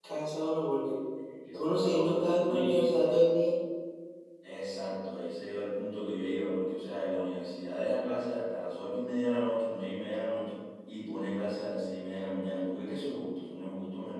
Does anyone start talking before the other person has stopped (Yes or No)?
Yes